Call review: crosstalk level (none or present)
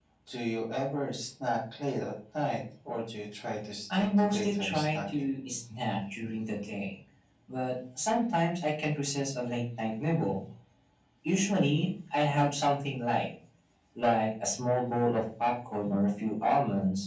present